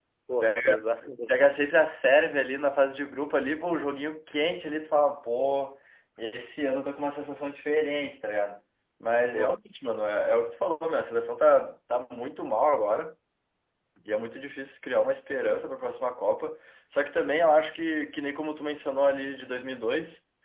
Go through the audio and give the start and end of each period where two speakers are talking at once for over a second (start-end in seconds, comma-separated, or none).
none